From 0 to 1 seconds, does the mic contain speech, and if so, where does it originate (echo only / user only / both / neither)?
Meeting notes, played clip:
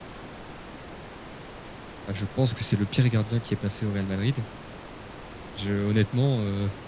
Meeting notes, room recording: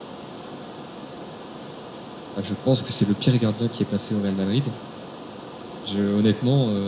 neither